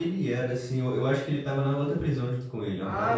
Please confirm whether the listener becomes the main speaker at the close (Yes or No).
Yes